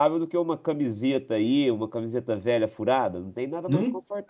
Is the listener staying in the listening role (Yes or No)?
No